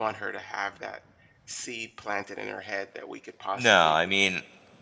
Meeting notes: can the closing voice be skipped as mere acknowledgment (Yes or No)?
No